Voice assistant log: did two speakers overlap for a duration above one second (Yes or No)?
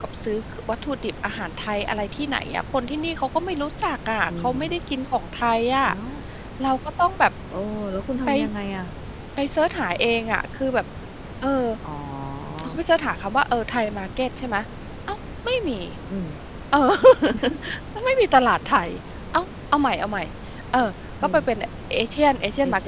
No